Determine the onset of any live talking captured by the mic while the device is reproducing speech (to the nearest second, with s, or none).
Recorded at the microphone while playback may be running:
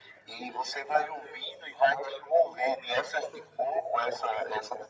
none